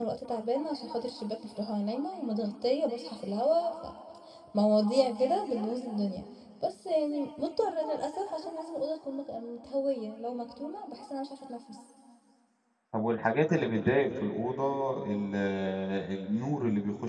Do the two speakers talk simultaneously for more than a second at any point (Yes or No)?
No